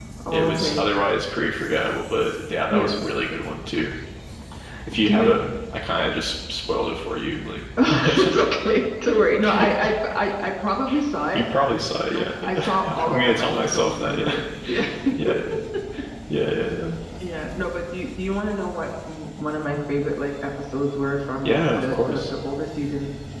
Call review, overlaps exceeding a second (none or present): present